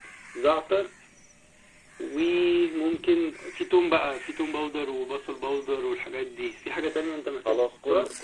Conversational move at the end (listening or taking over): taking over